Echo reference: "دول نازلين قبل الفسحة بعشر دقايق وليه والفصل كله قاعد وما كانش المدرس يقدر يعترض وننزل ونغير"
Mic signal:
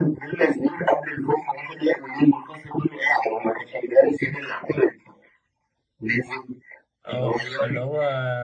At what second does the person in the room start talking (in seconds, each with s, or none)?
7.1 s